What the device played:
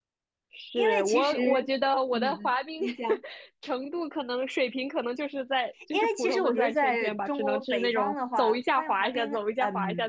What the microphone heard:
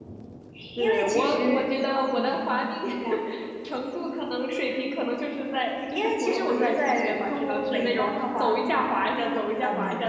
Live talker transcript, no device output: none

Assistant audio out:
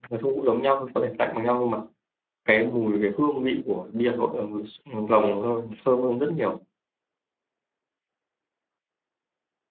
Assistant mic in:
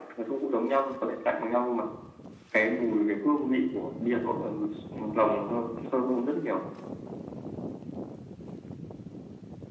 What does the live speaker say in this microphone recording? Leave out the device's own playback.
none

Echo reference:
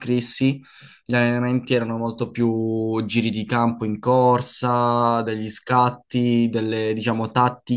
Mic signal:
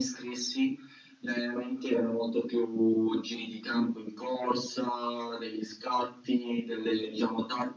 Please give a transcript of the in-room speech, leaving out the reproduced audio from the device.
none

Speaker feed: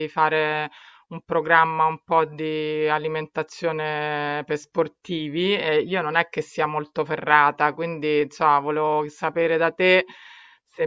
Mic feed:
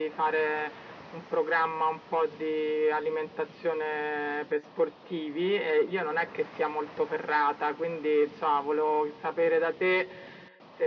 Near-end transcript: none

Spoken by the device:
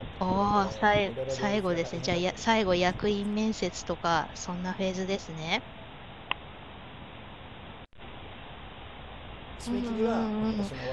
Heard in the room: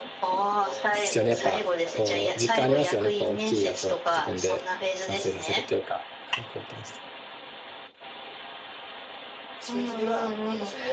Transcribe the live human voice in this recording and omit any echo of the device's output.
ですよね。やっぱこう実感ありますよね。こう大きいやつを自分で完成させるというか、はい、貢献して。

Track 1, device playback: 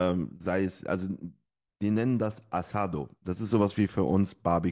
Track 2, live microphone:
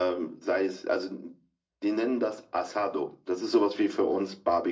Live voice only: none

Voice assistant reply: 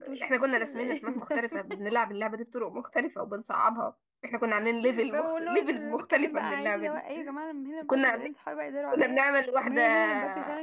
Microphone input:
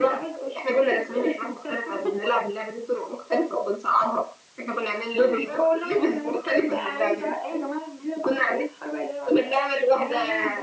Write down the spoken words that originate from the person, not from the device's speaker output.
none

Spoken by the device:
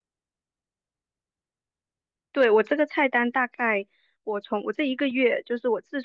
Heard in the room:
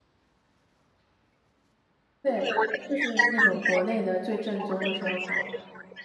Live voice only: 对，就是那种国内的最正宗的烧烤，

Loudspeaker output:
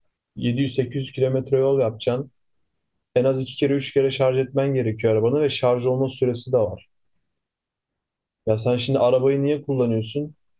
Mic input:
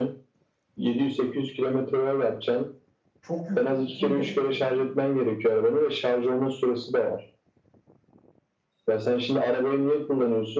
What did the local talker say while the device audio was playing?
Çok yük. Şimdi

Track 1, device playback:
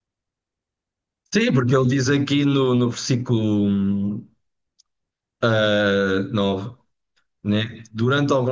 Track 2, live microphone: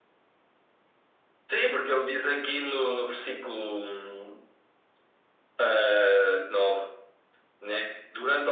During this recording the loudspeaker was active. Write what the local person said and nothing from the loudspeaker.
none

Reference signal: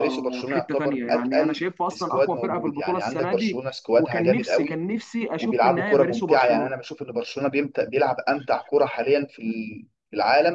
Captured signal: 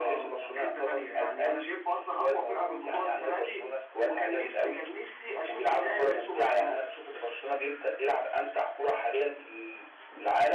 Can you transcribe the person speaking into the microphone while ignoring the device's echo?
none

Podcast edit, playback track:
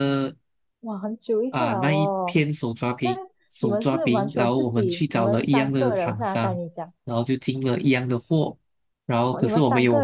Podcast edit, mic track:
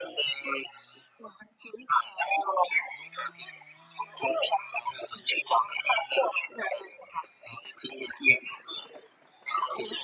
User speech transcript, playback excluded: none

